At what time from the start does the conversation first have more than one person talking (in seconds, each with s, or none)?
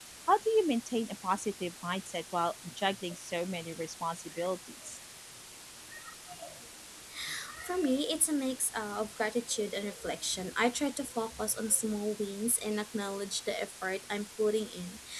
none